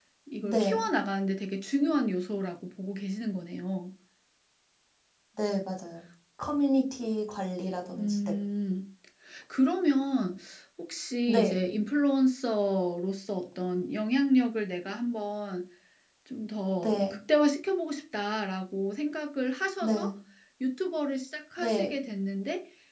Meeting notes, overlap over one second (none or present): none